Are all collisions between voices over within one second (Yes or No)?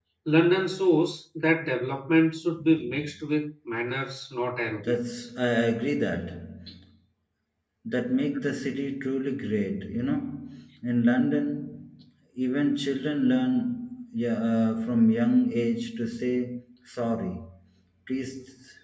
Yes